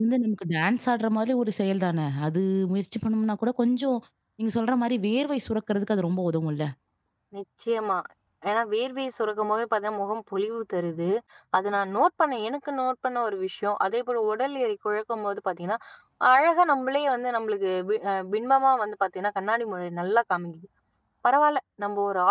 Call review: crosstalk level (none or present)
none